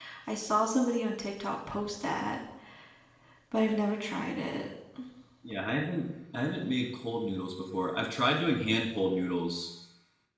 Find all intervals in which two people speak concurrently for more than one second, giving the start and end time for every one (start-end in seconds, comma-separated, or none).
none